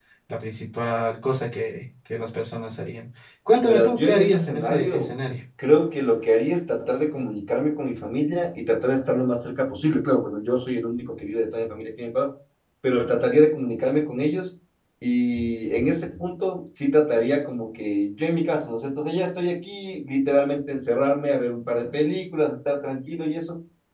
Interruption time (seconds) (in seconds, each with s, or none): 3.6 s